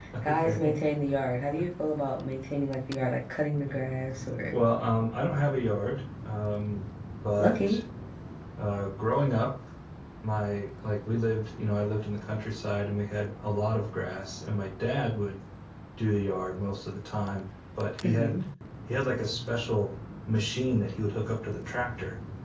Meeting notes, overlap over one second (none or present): none